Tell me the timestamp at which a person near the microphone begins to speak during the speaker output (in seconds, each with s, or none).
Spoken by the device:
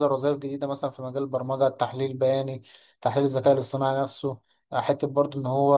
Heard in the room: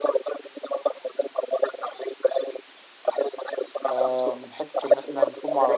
3.9 s